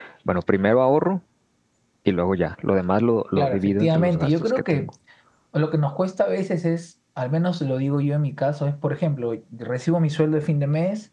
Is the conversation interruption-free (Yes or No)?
No